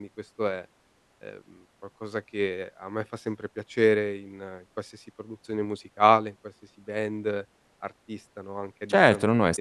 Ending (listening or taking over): taking over